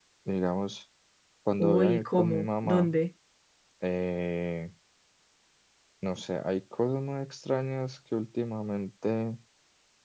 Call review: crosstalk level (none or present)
present